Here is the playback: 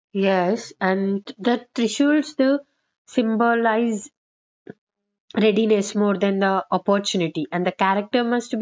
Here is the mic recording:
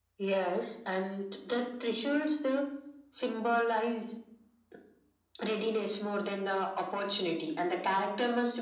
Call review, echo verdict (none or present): present